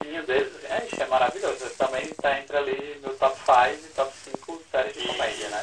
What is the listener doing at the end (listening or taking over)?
taking over